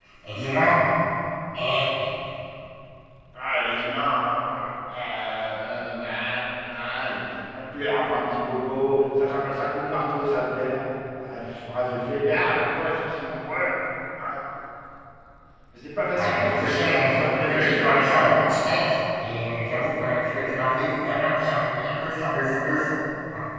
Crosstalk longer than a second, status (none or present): present